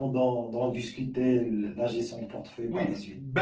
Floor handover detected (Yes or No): Yes